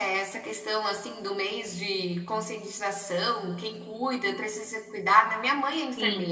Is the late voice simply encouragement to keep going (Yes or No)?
No